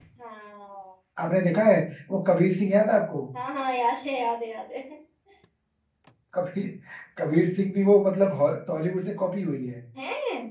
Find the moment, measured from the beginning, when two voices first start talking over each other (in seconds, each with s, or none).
none